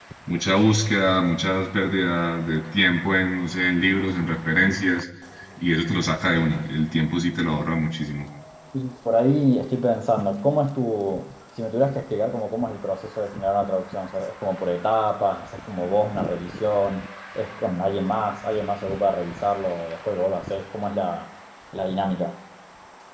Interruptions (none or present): none